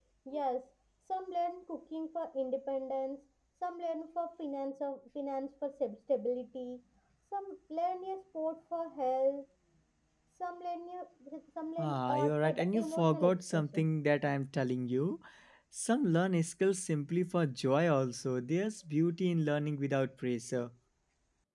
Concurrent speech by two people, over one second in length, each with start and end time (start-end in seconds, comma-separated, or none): 11.8-13.9